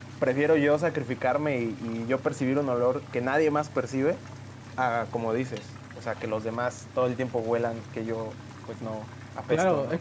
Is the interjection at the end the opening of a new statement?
Yes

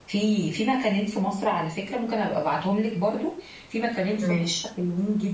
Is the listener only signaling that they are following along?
Yes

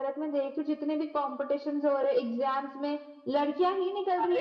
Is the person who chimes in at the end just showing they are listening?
No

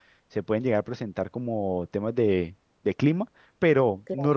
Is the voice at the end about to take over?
No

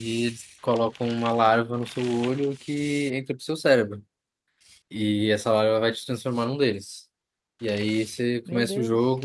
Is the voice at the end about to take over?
No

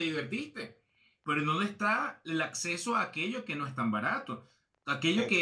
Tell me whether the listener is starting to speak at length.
No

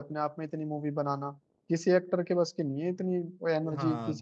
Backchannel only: No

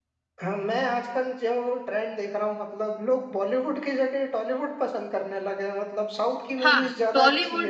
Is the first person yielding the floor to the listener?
Yes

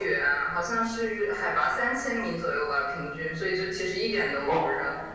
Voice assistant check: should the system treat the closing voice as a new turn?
Yes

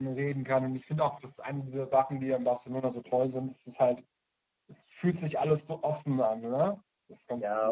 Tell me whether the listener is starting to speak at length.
Yes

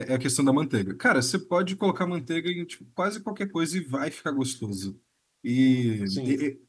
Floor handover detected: No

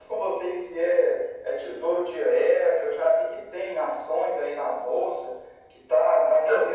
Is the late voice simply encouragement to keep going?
Yes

